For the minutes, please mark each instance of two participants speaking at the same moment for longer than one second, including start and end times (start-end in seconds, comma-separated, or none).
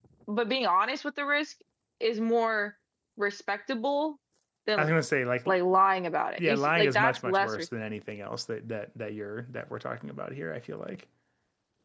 6.4-7.6